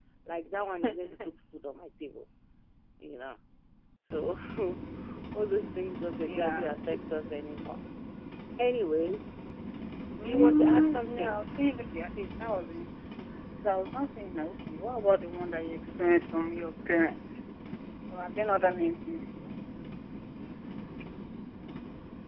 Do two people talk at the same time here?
Yes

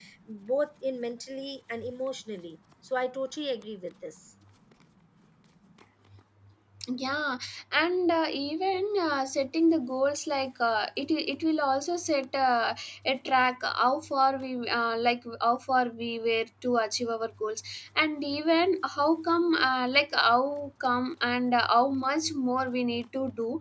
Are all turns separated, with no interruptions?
Yes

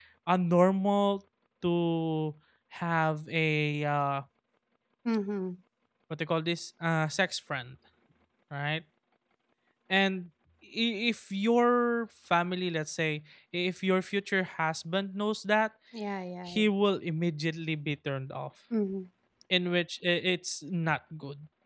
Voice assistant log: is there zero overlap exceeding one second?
Yes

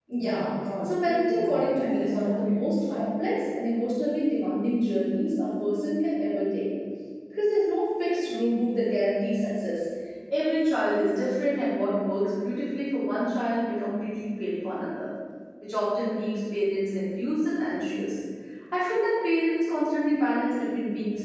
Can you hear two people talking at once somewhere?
Yes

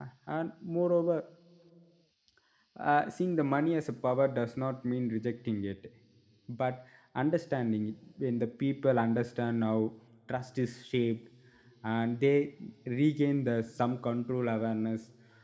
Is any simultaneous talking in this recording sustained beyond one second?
No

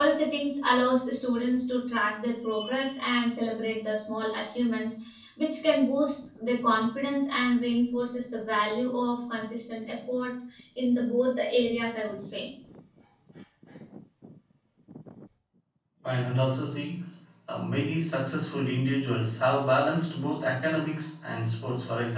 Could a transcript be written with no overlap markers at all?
Yes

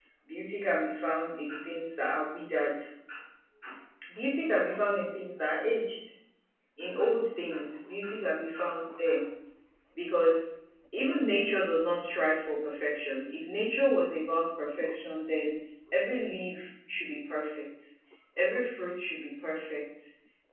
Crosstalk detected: No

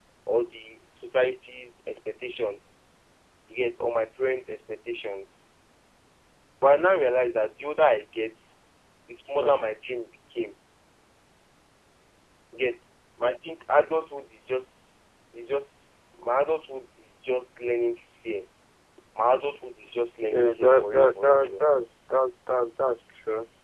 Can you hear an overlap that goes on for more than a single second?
Yes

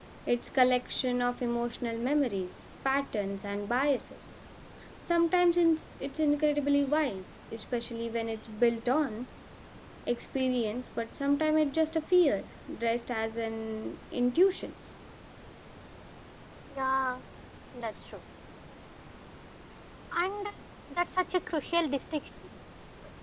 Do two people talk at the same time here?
No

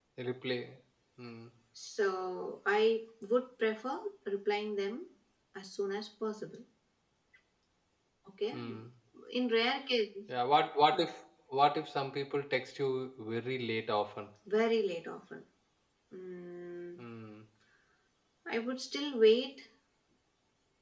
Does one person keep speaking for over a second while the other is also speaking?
No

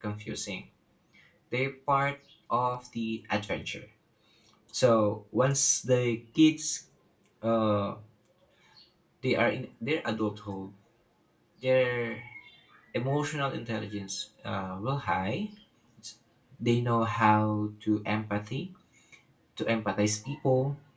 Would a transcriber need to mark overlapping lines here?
No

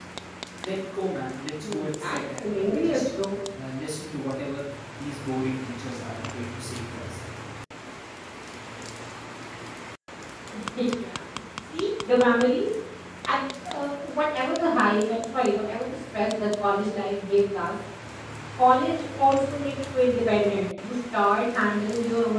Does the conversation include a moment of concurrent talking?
Yes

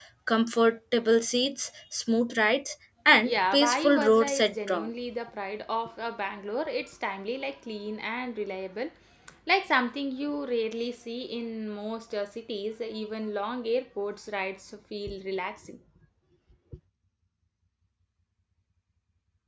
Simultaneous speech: Yes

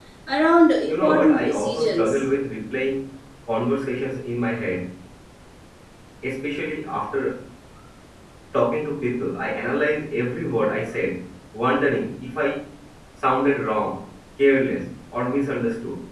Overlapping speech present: Yes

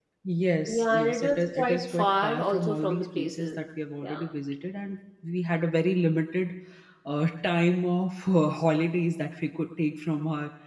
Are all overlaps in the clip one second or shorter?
No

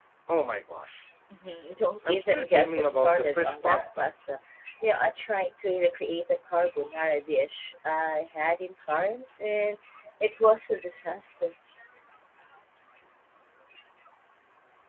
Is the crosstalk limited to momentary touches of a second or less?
No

